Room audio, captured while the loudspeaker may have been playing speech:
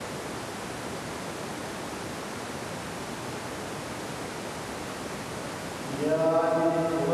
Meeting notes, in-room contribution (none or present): present